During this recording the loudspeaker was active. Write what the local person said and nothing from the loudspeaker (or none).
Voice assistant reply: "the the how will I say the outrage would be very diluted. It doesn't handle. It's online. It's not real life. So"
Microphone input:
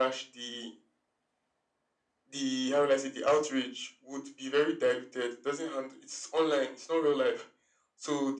none